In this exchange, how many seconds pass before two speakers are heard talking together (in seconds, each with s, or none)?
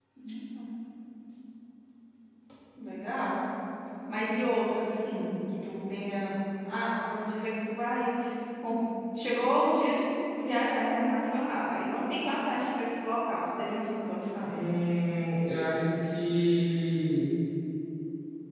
none